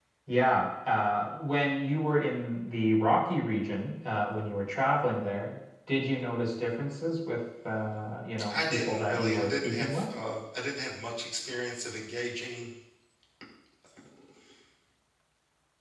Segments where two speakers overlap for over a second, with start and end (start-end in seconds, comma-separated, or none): 8.5-10.0